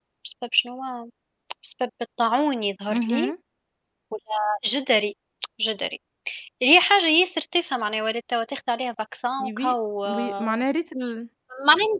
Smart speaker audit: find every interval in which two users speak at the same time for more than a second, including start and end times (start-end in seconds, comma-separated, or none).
none